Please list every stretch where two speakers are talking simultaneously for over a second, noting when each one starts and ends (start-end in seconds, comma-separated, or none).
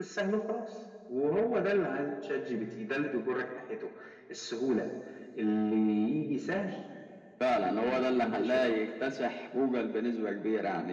7.5-8.8